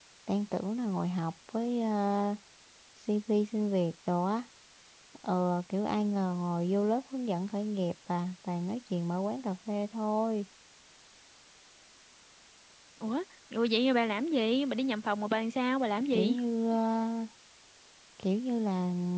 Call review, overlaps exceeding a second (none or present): none